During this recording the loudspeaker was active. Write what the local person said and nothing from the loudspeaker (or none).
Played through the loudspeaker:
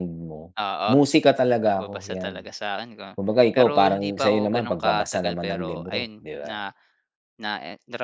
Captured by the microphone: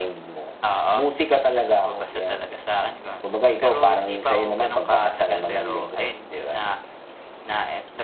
none